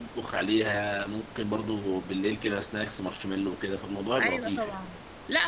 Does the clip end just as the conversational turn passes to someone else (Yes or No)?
Yes